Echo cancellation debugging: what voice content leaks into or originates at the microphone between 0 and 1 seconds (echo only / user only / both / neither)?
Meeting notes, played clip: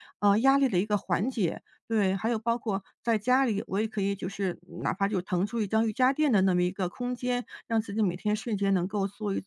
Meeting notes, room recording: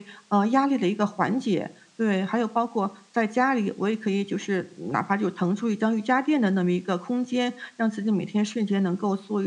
echo only